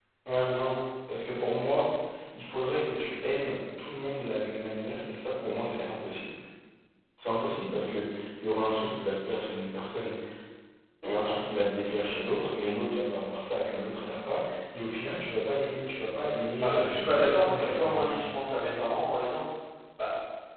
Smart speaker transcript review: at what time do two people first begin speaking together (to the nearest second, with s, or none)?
17 s